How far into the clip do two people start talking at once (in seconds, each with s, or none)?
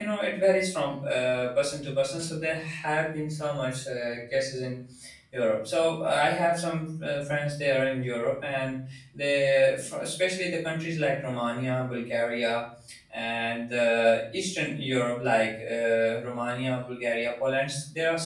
none